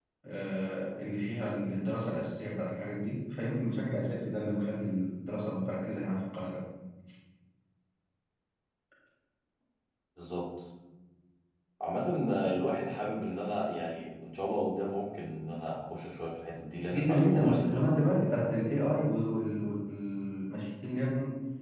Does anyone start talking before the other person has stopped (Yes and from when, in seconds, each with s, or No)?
Yes, from 16.9 s